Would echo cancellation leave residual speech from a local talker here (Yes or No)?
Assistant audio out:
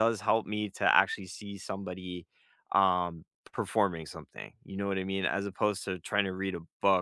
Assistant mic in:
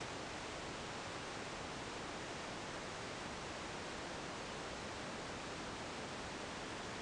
No